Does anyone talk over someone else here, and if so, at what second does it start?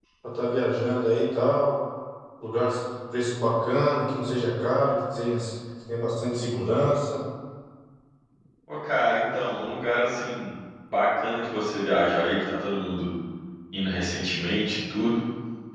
none

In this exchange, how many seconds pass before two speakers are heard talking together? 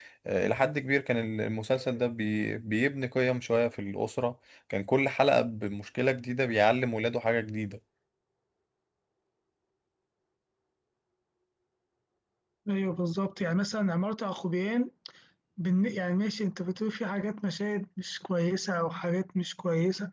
none

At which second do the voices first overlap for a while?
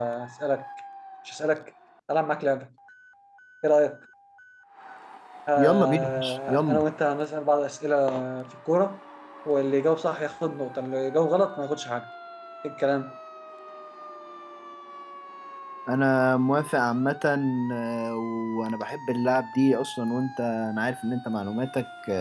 6 s

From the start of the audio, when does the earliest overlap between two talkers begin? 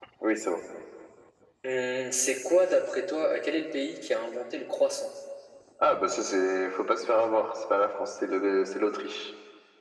none

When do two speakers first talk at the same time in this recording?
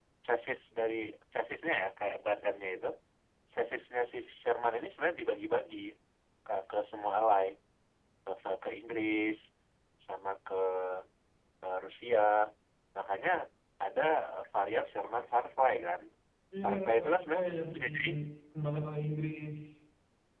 17 s

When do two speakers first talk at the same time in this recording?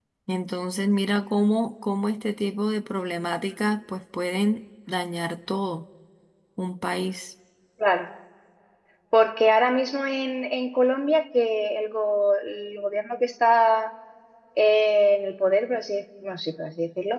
none

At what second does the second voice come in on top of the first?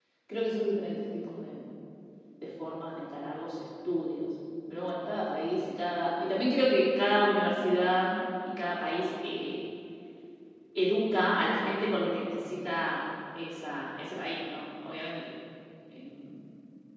none

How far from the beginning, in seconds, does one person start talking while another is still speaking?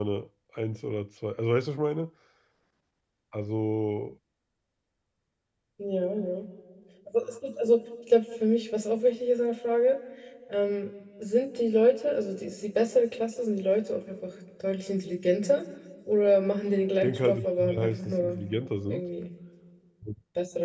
17 s

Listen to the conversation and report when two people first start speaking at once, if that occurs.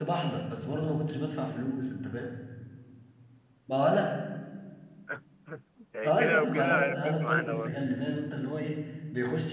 6 s

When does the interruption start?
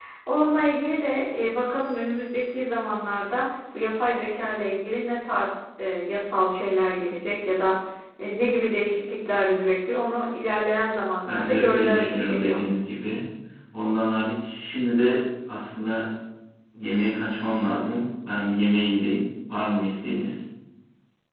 11 s

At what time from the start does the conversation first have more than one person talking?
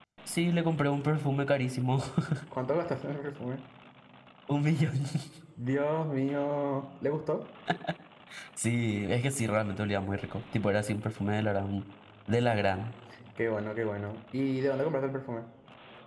none

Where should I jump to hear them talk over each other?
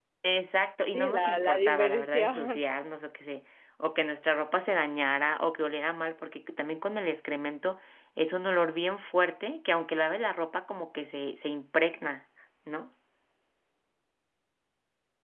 1 s

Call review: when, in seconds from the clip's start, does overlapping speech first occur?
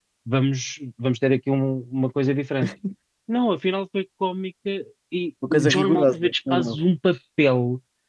5 s

